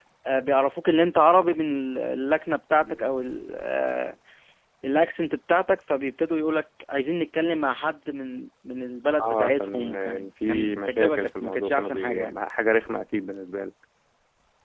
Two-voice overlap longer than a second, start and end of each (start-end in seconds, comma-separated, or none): 9.2-12.4